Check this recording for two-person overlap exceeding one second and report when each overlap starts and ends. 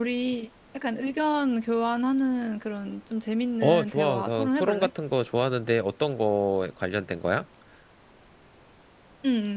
3.6-4.9

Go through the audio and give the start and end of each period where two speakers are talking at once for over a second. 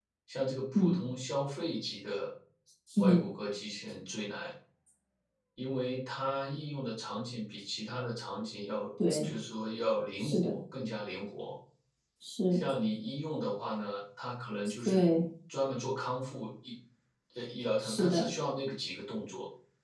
none

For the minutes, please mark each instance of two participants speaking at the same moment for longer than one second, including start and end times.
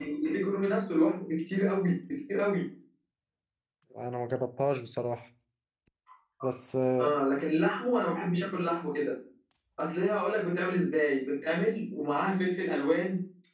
none

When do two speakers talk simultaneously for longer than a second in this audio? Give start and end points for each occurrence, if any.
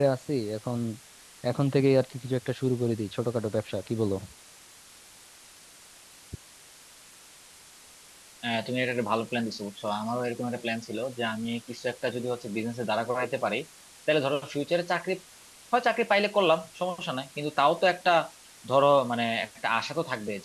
none

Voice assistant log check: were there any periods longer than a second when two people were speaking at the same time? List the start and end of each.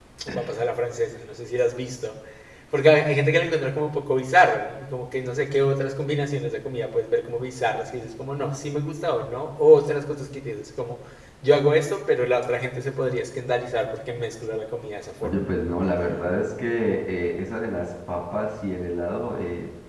none

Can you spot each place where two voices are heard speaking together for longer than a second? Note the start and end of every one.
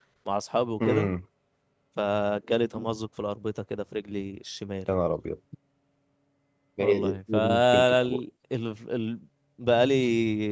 6.8-8.2

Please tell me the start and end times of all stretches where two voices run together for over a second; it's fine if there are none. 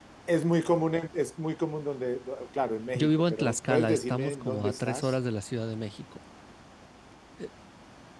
3.0-5.2

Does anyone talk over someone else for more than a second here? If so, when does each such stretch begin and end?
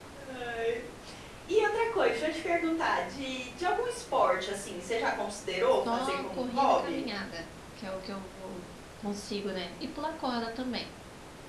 5.7-7.0

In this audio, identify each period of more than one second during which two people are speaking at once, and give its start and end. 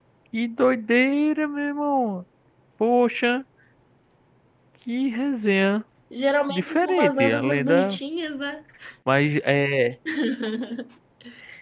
6.5-8.0

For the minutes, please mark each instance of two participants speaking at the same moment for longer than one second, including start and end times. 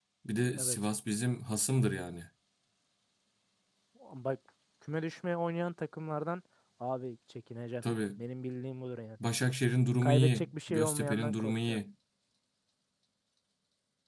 10.0-11.8

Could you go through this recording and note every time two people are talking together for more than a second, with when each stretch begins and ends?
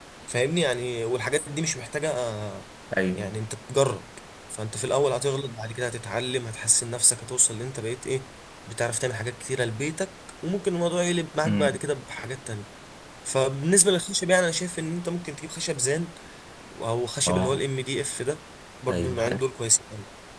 none

